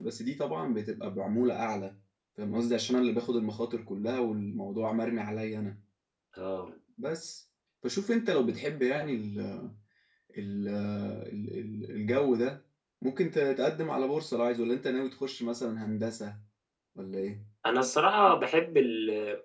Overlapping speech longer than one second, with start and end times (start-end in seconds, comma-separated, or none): none